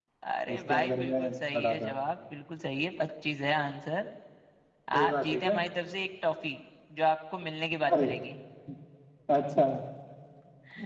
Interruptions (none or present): present